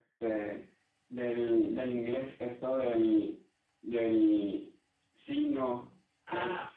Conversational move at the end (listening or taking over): taking over